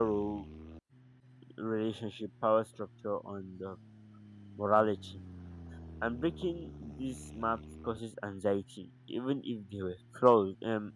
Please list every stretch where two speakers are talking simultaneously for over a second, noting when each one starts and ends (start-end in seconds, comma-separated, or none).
none